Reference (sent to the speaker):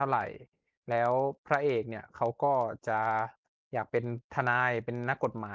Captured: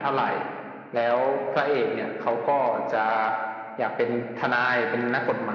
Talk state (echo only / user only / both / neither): echo only